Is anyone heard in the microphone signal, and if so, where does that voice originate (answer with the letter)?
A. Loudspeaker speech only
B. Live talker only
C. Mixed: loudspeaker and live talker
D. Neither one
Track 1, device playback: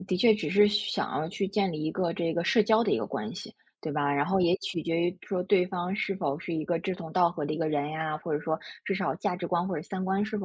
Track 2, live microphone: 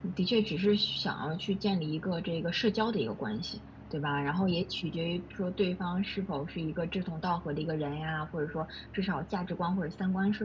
A